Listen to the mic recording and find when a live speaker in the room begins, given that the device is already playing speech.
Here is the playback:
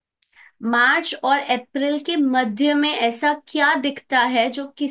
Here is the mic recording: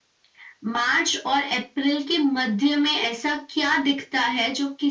none

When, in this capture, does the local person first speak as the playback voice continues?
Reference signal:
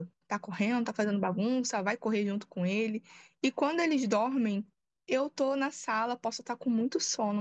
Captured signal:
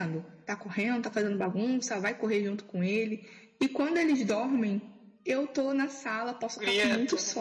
6.5 s

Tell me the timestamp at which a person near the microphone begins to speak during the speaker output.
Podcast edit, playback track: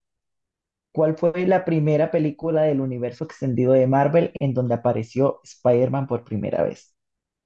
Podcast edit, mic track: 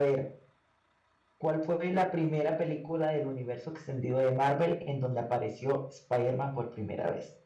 none

